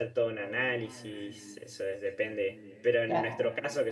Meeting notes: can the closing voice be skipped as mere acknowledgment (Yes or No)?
Yes